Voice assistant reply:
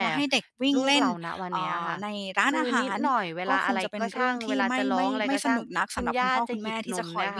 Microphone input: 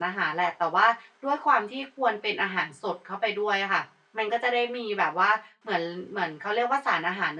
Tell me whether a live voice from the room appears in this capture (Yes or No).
Yes